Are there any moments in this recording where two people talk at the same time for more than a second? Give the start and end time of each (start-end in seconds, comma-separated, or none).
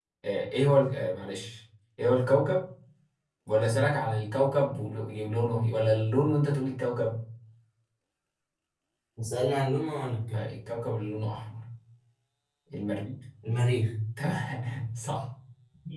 none